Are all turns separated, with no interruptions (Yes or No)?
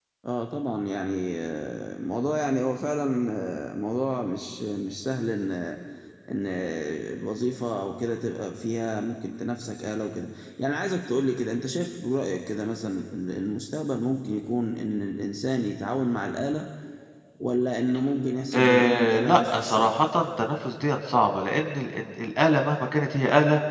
No